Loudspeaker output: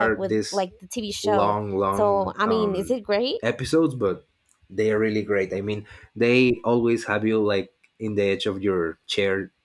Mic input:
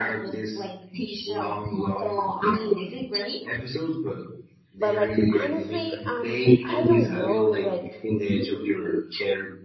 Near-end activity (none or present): present